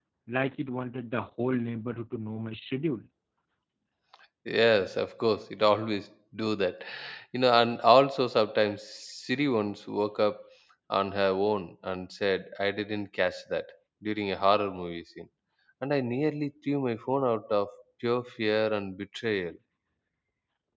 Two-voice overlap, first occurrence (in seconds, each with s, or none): none